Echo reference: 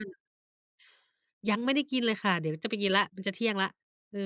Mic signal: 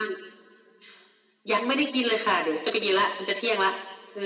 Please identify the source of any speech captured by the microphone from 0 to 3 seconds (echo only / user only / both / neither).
echo only